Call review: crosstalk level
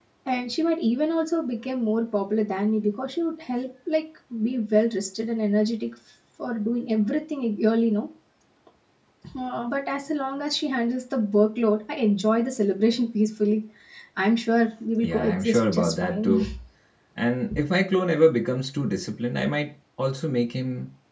present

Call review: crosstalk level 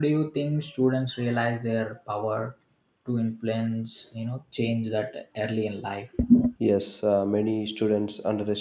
none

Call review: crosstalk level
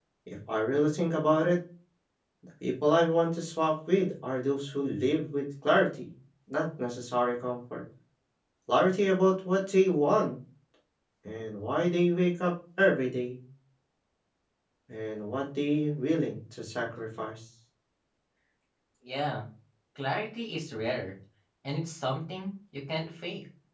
none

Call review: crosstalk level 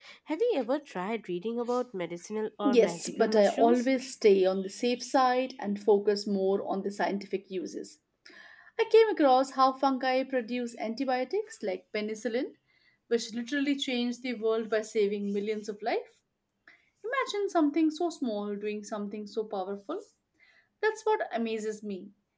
present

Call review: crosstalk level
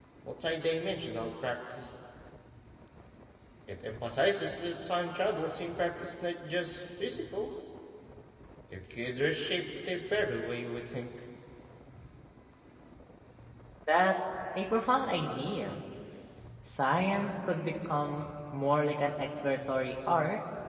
none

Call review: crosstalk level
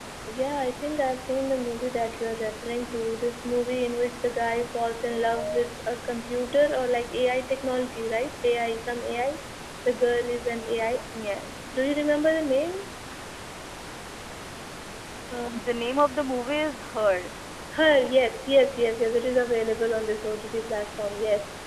none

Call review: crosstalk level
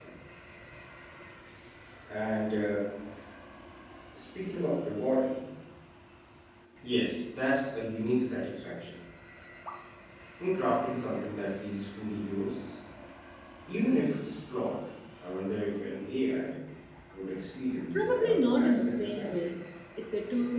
present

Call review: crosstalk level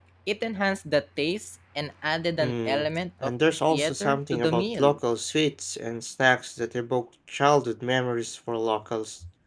present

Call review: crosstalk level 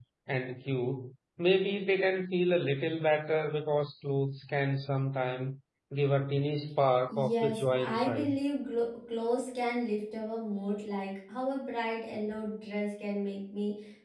present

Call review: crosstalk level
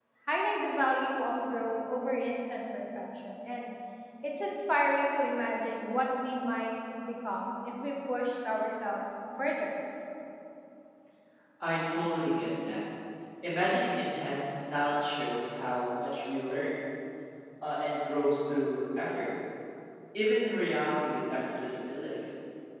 none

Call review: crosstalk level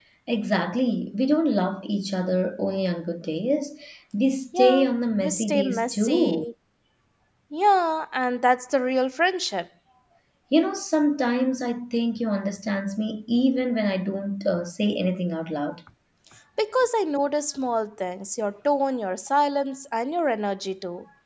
present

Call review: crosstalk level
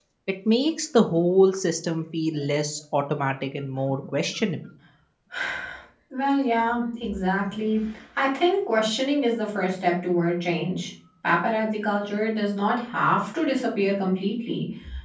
none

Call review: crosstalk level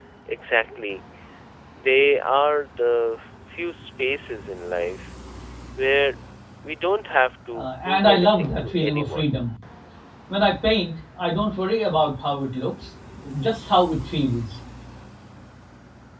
present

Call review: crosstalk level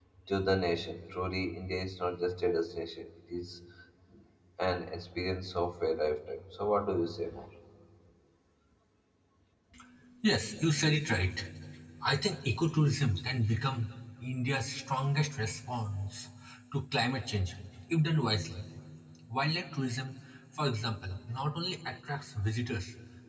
none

